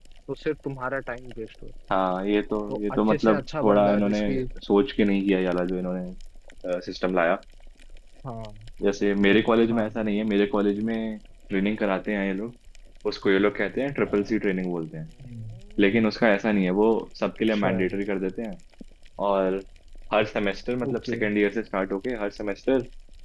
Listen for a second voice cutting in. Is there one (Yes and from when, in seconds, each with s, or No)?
Yes, from 2.7 s